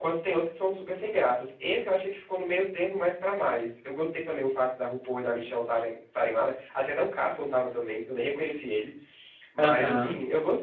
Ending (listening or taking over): listening